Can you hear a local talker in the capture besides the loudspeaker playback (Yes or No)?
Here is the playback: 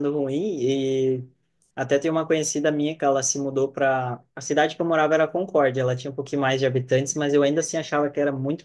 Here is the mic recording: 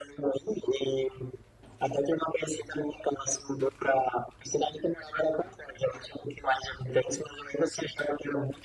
No